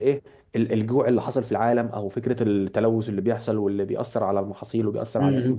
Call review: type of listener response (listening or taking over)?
taking over